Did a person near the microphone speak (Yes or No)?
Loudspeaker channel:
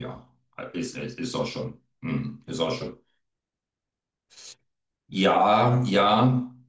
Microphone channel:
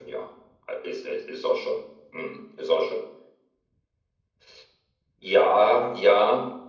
No